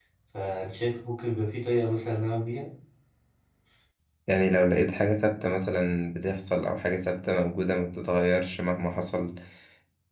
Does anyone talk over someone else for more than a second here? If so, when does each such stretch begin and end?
none

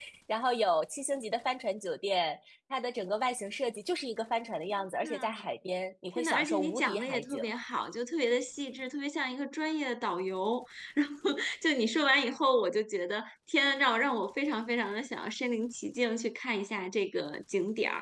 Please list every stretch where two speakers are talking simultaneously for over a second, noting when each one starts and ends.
6.2-7.4

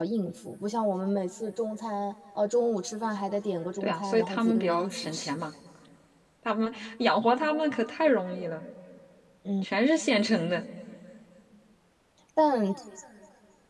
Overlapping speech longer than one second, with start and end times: 3.8-5.4

